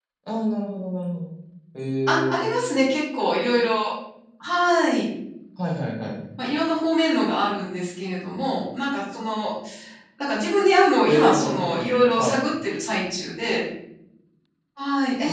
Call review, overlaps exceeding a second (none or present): present